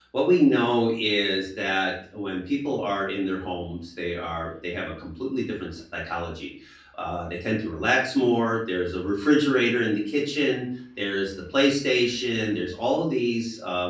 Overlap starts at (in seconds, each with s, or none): none